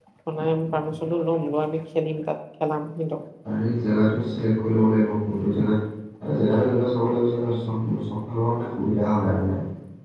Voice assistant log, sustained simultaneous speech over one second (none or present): none